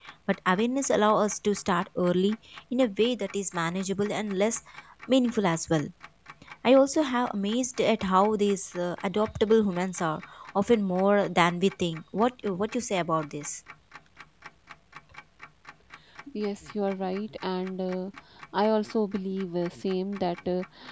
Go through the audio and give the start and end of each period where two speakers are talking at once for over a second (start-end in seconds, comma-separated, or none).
none